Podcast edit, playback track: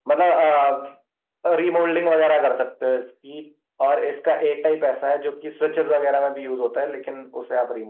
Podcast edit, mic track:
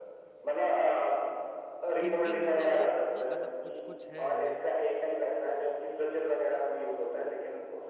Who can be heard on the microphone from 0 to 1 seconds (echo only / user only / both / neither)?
echo only